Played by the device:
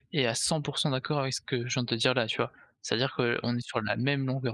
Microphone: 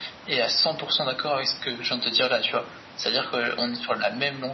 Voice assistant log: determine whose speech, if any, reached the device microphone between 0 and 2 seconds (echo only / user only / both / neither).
echo only